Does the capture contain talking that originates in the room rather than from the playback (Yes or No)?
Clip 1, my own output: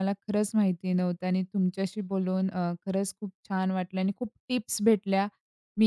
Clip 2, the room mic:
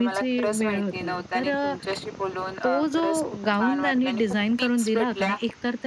Yes